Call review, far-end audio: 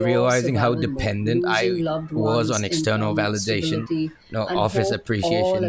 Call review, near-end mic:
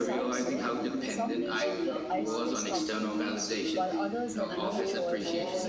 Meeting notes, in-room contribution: present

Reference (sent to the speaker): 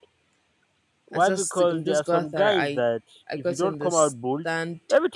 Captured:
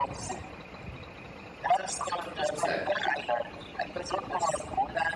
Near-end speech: present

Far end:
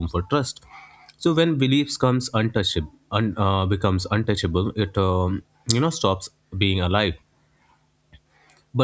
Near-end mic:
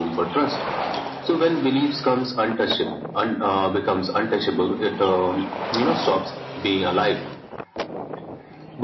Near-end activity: none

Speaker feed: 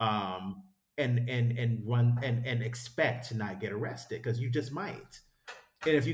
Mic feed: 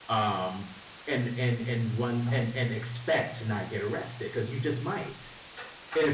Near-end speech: none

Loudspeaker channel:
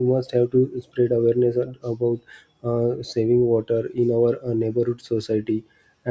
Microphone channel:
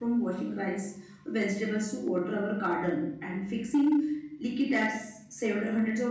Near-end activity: present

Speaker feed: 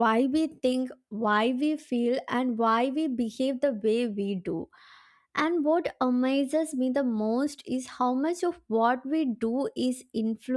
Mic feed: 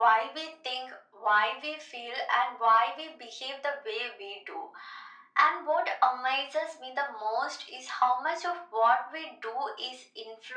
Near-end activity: none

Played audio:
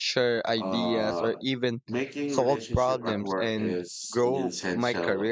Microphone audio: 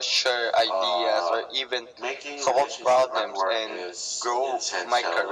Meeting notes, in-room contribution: none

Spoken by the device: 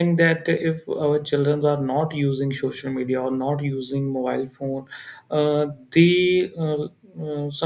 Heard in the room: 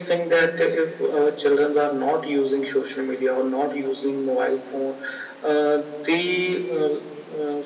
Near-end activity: none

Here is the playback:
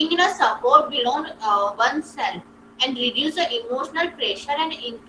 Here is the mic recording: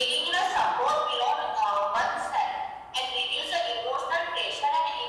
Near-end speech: none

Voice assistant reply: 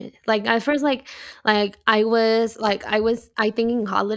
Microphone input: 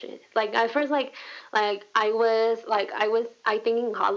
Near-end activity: none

